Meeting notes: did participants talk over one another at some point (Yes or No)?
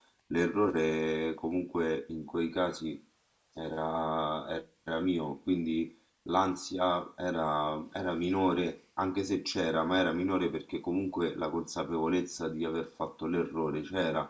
No